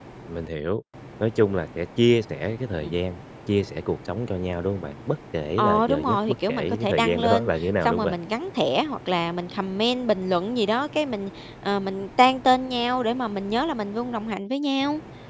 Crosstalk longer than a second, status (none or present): present